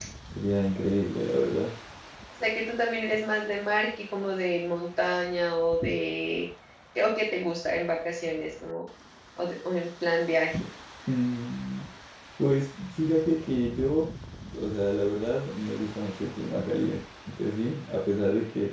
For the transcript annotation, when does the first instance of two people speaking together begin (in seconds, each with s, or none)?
none